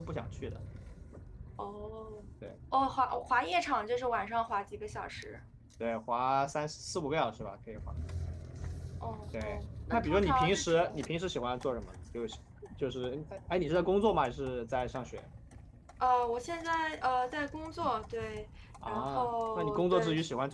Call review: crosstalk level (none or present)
present